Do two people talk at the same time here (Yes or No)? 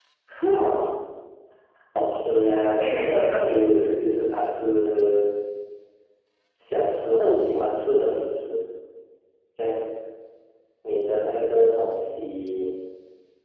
Yes